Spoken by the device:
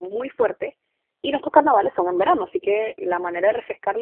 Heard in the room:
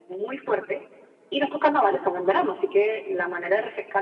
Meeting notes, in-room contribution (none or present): none